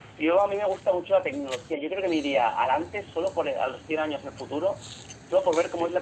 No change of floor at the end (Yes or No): Yes